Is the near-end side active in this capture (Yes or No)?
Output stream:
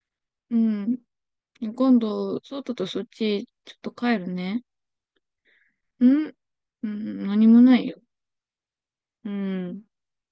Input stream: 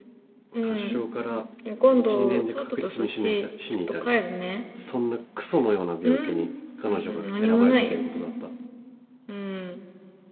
Yes